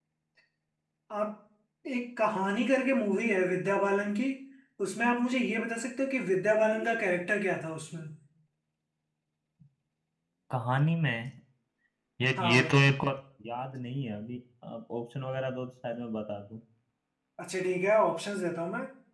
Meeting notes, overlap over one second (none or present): none